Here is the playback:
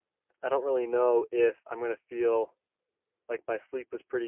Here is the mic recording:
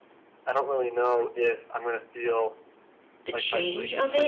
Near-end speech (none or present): present